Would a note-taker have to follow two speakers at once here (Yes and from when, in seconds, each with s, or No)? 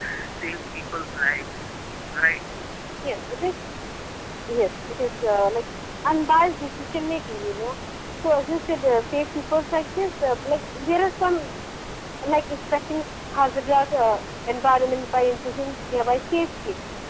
No